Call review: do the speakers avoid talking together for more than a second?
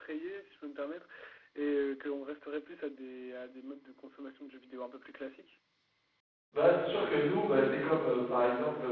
Yes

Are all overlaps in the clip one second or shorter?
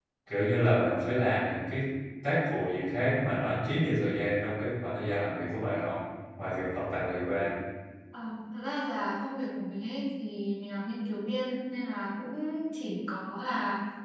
Yes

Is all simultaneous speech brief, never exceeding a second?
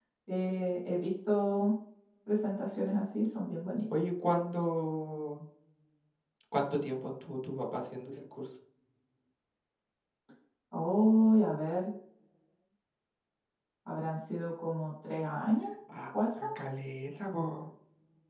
Yes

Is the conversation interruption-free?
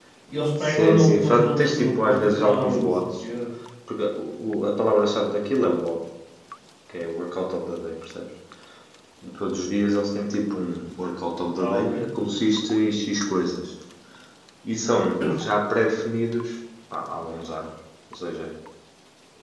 No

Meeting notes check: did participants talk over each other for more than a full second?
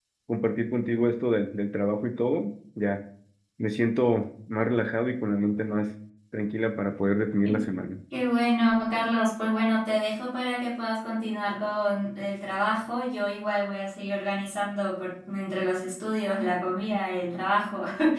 No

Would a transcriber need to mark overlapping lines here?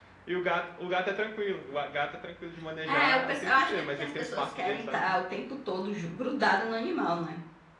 Yes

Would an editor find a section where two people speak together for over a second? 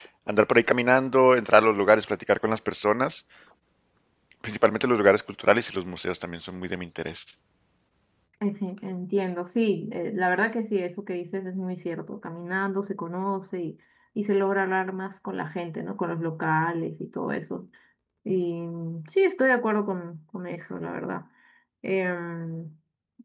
No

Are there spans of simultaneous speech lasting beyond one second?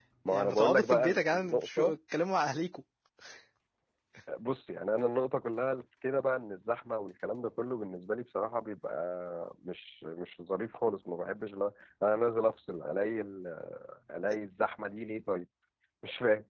Yes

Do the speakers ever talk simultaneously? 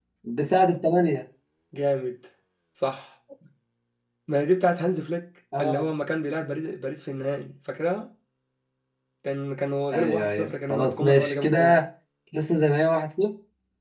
Yes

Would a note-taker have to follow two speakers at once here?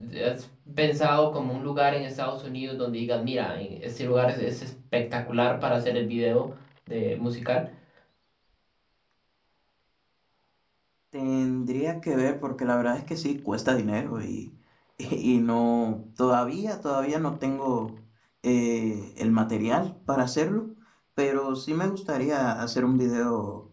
No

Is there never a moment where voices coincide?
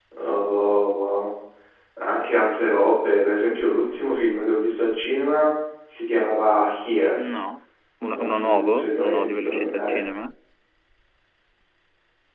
No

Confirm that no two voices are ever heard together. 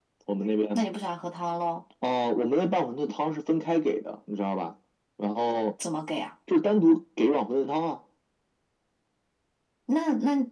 Yes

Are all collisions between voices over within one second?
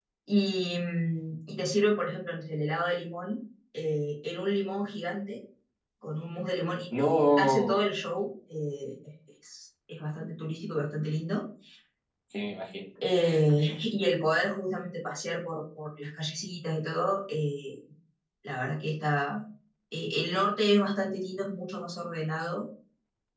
Yes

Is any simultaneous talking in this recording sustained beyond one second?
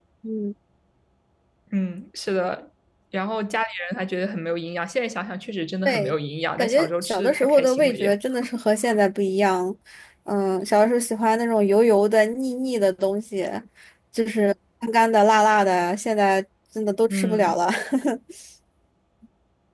Yes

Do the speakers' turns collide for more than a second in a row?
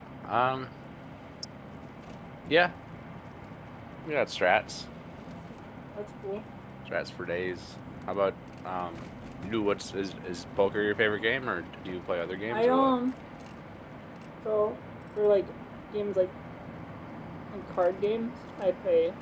No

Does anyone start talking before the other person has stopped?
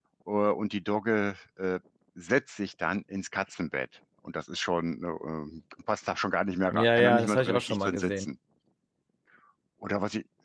Yes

